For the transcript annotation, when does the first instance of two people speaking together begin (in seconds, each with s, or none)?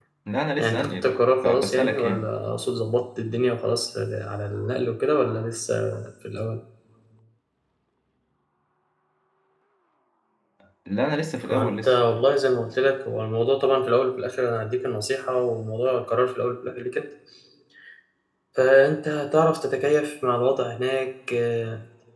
0.6 s